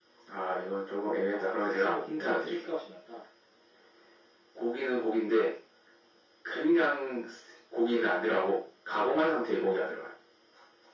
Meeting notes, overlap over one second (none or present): present